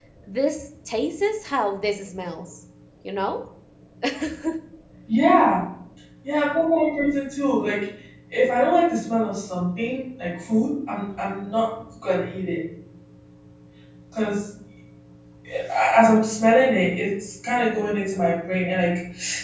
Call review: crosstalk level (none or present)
none